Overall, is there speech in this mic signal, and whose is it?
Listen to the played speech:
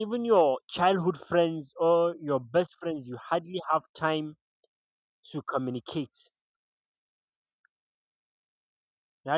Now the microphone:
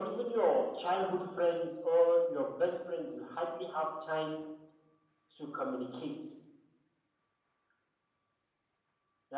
echo only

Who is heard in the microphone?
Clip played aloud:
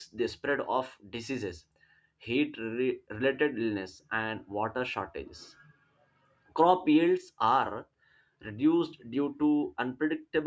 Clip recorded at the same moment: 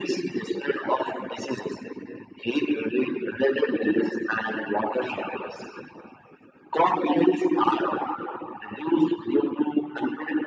echo only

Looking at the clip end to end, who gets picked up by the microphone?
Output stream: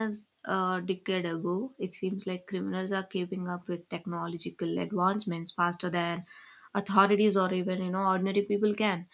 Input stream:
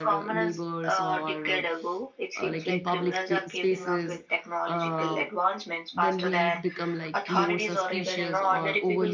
both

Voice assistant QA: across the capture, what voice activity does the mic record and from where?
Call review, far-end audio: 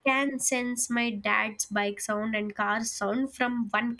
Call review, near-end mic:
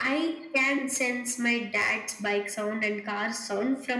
echo only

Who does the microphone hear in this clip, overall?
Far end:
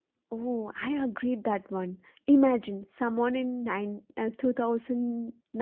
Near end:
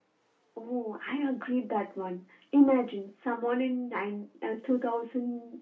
echo only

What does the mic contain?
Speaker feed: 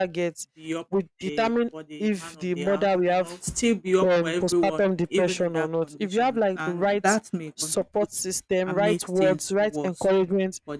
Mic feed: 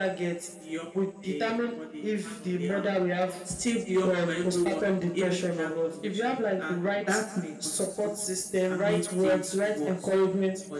echo only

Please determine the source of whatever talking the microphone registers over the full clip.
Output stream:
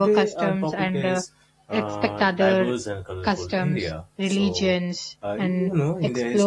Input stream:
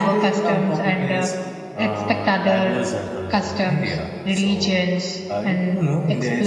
echo only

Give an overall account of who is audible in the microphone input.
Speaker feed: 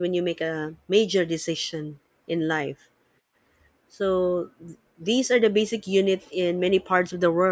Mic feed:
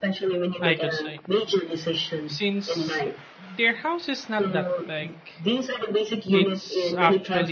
both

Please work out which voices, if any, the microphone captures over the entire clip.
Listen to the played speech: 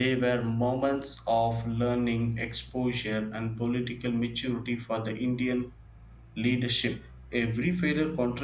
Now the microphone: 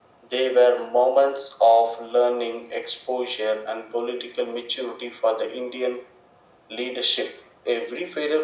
echo only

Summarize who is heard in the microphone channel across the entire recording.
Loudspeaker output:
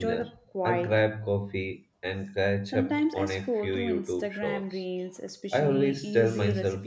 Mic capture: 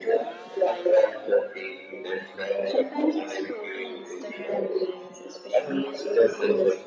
echo only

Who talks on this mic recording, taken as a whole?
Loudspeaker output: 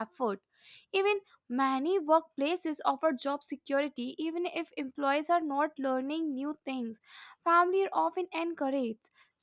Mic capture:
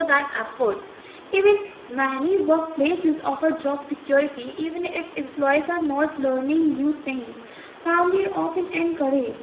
echo only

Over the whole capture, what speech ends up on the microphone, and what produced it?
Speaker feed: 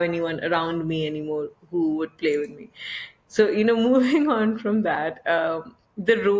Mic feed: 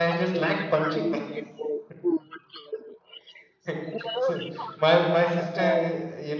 both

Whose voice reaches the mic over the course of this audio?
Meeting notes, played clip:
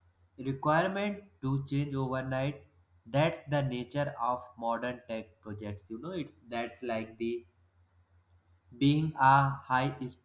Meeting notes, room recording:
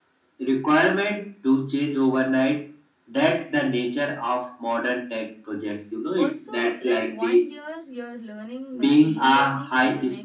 both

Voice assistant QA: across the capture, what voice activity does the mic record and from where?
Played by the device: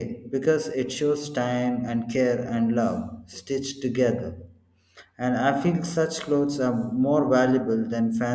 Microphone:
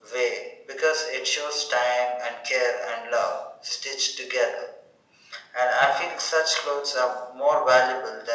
echo only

